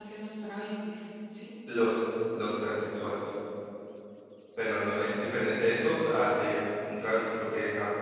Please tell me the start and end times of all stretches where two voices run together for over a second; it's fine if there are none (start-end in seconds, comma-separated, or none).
4.8-6.0